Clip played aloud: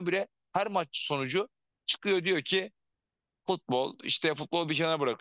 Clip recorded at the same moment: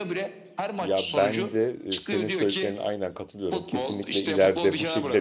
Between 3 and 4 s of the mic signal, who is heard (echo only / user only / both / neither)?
both